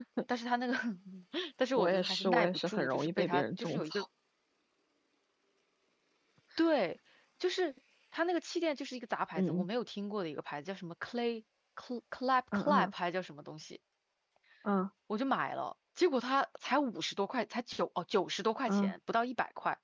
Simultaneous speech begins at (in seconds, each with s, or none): 1.8 s